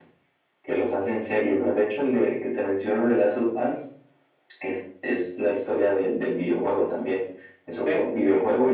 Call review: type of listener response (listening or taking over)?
listening